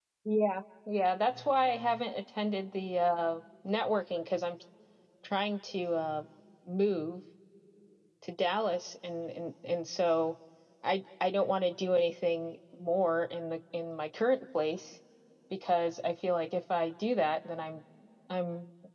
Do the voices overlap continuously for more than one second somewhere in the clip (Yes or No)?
No